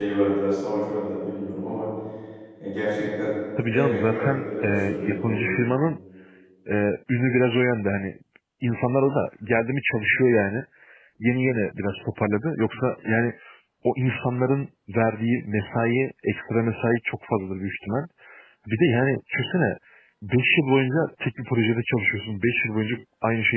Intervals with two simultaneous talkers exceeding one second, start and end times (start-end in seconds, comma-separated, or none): 3.7-5.5